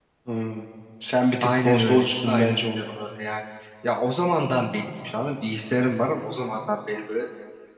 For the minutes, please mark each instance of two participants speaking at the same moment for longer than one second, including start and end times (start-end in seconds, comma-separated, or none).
1.4-2.8